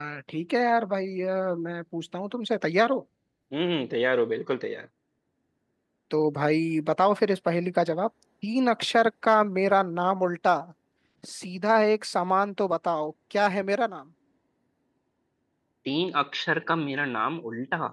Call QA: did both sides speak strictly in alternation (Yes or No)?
Yes